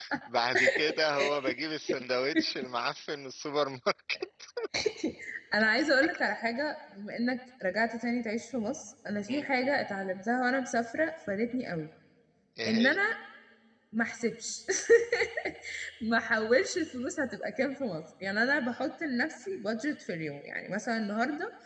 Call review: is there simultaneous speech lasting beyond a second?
No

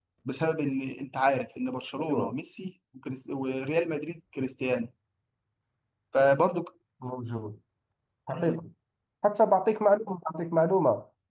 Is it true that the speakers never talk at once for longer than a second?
Yes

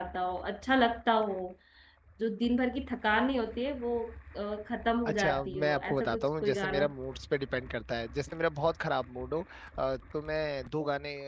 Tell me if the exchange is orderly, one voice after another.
No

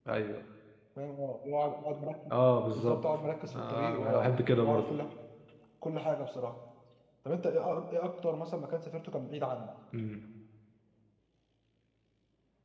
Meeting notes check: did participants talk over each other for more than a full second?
Yes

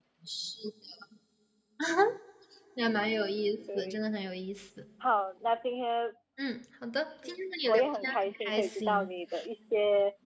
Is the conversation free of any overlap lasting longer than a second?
No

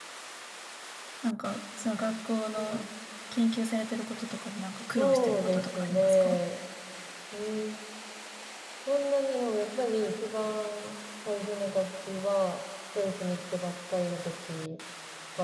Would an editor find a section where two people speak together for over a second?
Yes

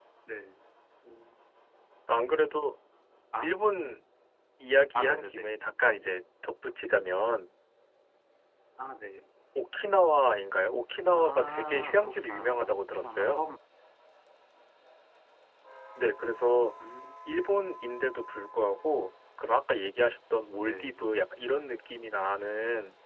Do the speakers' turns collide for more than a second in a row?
Yes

